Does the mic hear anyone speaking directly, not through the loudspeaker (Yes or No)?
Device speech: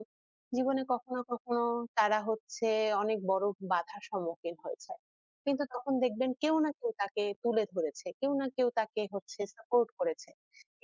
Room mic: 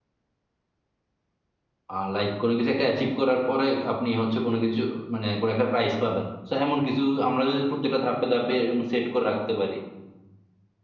Yes